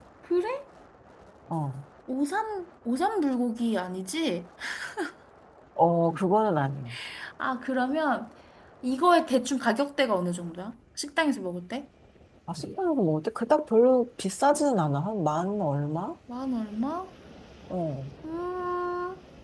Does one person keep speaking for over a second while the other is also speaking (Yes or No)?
No